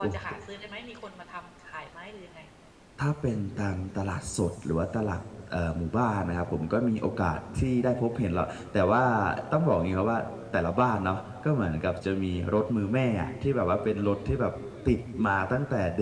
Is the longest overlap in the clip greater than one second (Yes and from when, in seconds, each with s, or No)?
No